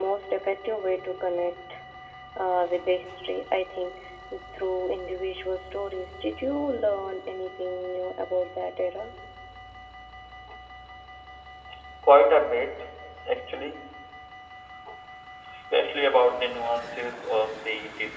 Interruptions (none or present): none